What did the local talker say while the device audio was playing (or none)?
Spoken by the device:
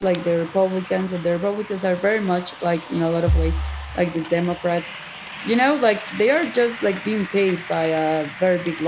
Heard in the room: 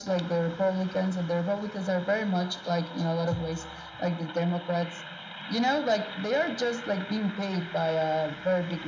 none